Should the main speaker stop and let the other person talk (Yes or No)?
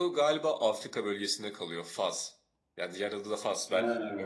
Yes